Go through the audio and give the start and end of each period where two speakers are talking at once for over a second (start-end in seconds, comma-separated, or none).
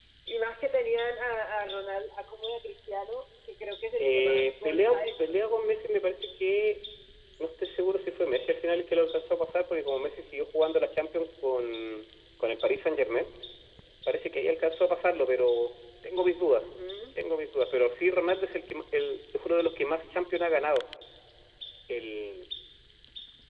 4.0-5.5